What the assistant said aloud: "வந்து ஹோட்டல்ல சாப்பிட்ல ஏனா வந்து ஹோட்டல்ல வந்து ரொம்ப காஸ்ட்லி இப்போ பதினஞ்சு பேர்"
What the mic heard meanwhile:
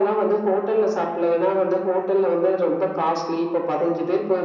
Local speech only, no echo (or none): none